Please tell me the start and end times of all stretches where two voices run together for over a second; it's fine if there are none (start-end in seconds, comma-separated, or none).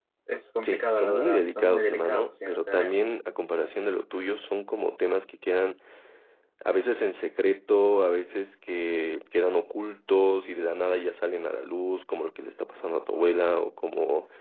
0.6-3.0